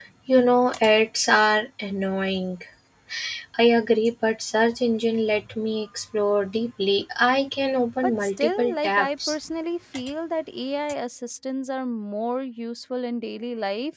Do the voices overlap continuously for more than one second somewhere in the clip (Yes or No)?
Yes